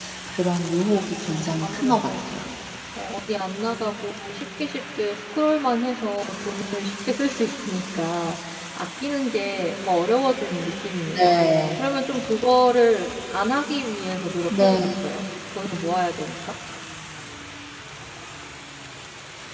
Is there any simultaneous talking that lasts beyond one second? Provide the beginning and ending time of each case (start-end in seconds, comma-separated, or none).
0.8-2.1